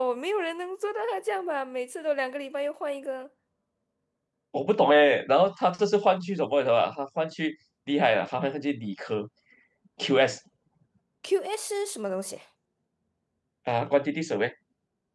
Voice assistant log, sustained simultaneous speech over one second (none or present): none